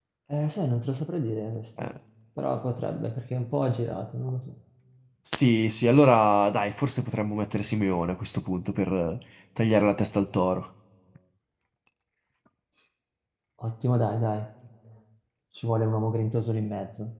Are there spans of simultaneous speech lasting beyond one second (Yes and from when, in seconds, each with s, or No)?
No